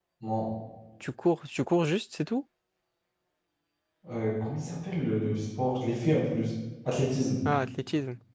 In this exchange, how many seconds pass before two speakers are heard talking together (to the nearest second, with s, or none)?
none